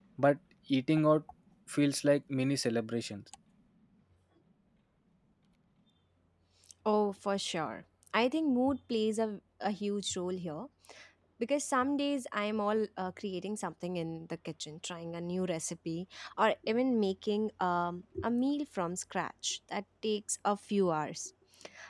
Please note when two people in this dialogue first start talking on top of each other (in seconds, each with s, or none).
none